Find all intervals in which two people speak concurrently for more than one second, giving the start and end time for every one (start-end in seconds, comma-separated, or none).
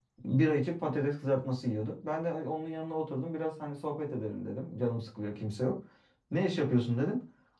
none